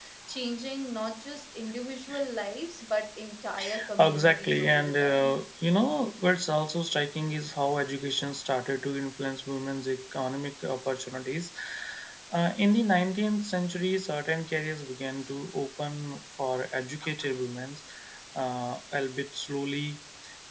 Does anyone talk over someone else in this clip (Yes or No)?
Yes